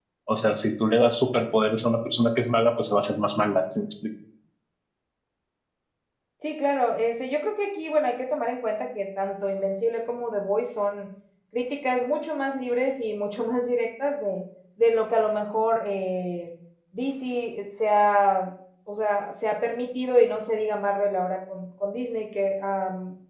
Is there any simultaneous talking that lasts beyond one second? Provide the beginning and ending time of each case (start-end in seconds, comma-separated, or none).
none